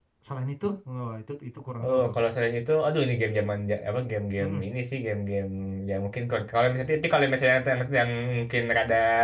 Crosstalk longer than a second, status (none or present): none